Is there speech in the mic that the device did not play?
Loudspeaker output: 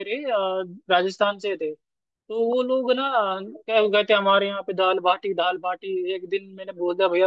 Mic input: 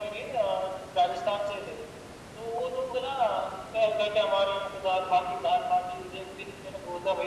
No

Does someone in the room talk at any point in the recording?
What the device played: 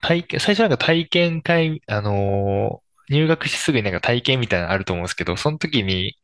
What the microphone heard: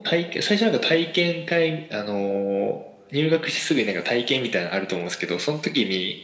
No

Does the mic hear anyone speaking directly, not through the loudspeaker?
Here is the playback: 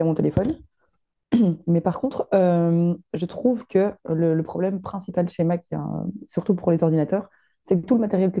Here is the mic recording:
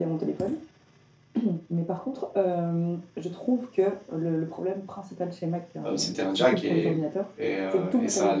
Yes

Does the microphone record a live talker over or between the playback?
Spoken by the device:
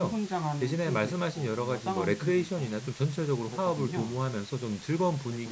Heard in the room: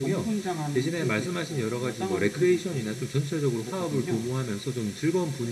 No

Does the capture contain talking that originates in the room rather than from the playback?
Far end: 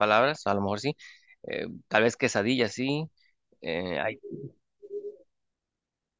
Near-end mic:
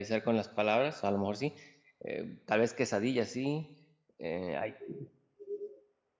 No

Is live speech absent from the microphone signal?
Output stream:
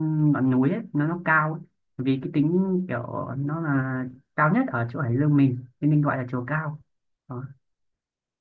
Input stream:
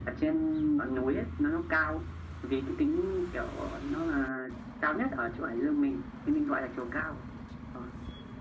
Yes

